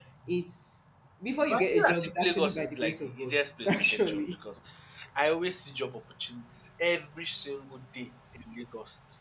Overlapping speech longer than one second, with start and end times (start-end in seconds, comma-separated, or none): 1.5-4.2